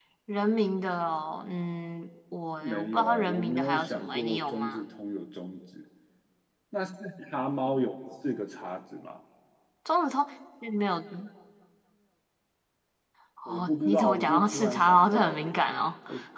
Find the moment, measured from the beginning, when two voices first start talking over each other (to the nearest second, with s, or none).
3 s